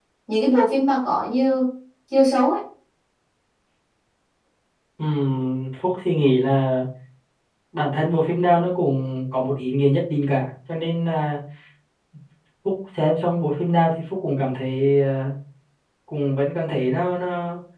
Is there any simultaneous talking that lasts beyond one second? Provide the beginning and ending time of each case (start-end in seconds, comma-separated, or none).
none